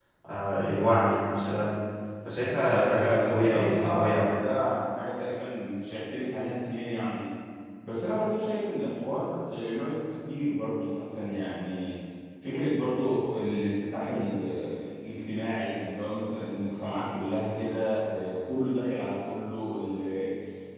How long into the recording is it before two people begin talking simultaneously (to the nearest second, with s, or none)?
3 s